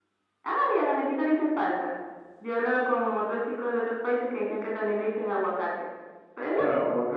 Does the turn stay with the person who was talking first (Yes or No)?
No